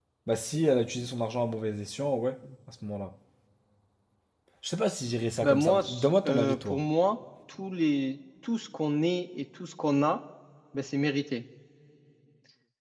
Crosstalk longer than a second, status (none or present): present